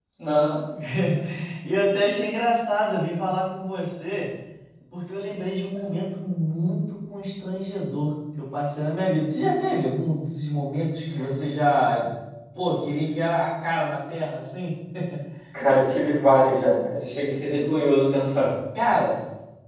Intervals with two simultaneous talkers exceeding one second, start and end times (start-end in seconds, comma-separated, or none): none